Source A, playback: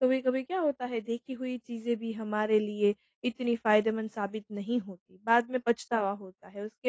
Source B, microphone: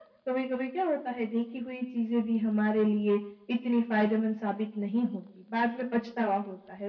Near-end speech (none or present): none